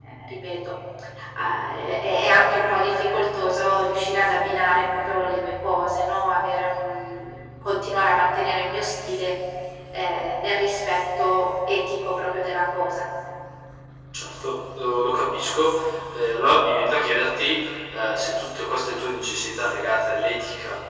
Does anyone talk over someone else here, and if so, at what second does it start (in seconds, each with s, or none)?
none